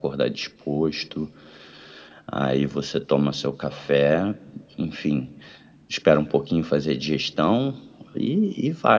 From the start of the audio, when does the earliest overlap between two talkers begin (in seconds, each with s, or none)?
none